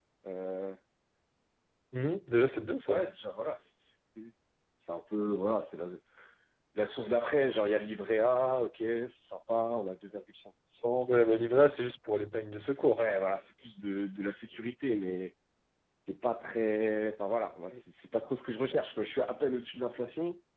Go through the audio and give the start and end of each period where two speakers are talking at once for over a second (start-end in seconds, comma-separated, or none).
none